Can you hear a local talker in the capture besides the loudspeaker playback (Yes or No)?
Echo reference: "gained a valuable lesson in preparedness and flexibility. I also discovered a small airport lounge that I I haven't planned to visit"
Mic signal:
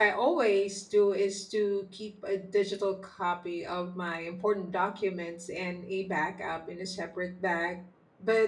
Yes